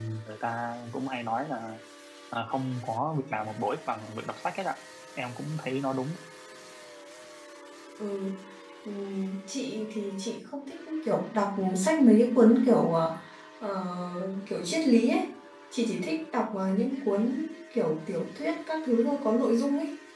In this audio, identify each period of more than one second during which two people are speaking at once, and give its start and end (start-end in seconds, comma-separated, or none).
none